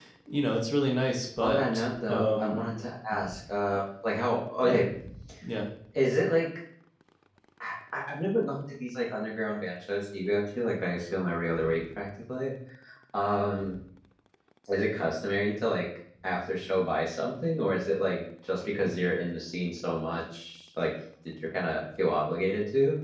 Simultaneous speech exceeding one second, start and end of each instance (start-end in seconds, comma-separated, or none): 1.4-2.7